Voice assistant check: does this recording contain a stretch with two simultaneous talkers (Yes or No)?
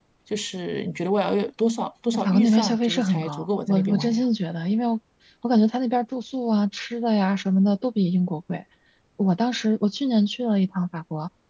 Yes